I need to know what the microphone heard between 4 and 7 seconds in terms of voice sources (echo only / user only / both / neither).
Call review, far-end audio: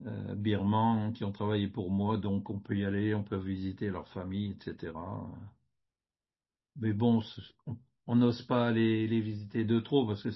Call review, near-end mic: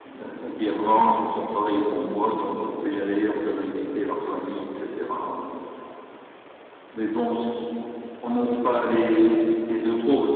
echo only